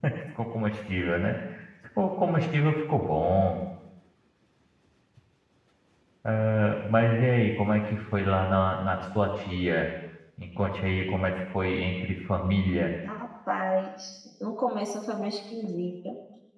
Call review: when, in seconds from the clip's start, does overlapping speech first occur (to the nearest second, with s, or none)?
none